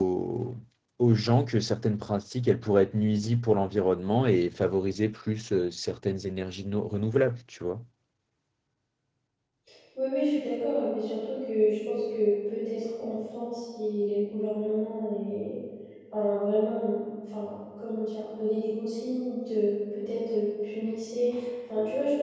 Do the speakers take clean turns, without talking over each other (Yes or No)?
Yes